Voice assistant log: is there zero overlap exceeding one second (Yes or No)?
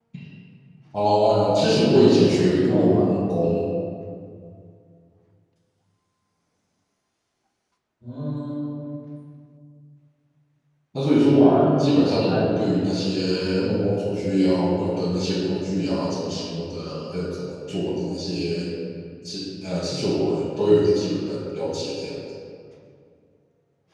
No